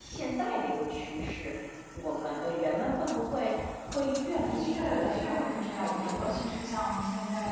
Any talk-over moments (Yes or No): Yes